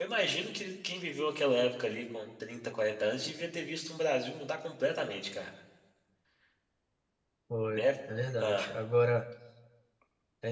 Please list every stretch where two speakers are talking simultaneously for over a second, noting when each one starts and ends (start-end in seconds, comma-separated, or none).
none